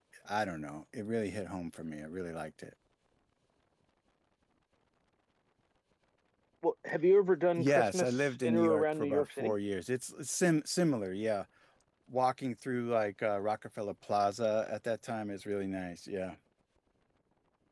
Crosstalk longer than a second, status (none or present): present